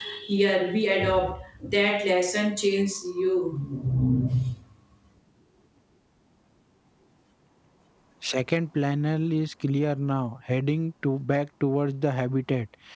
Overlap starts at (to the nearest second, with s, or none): none